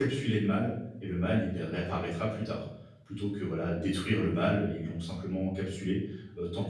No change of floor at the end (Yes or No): No